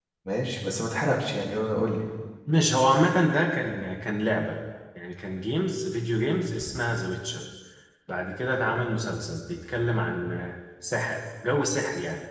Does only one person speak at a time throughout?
Yes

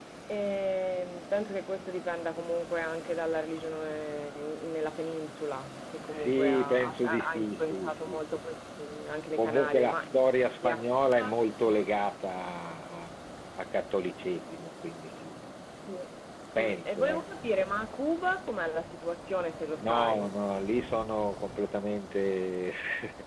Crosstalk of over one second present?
Yes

